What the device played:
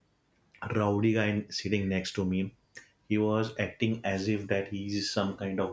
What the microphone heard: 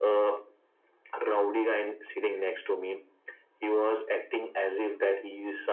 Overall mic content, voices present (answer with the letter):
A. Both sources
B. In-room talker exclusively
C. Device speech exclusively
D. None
C